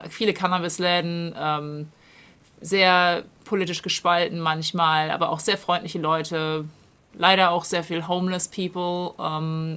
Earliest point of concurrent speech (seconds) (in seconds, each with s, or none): none